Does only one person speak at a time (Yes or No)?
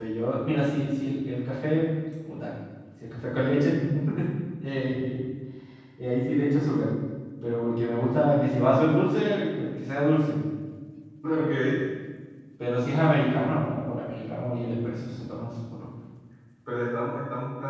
Yes